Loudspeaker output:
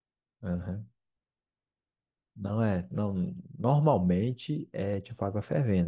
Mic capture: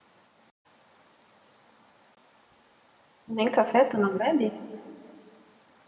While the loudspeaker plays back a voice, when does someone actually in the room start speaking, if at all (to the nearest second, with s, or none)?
3 s